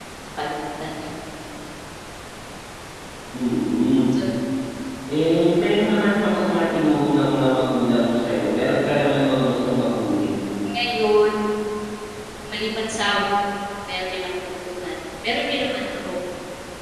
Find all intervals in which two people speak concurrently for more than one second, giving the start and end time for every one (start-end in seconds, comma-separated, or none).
none